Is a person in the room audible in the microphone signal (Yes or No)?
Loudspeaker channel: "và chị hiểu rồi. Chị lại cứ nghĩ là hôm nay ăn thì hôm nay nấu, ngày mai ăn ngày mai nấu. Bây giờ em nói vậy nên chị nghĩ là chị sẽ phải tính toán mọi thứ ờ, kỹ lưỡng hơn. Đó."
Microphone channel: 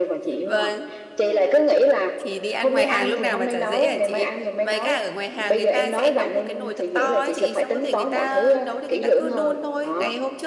Yes